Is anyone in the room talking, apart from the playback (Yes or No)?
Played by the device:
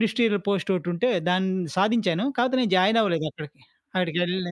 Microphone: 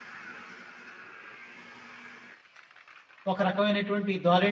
Yes